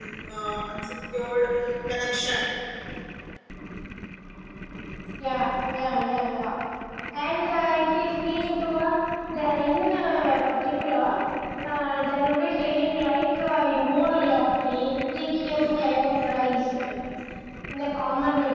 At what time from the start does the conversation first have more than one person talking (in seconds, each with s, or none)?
none